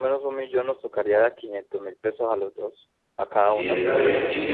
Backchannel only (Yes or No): No